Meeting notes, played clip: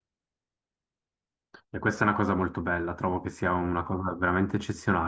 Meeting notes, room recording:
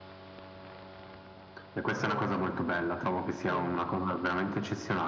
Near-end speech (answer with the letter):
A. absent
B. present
B